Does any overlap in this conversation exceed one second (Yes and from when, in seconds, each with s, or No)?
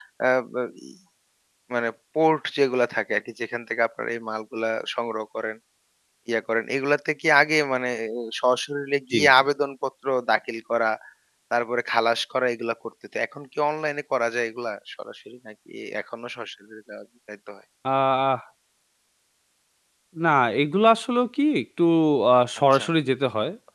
No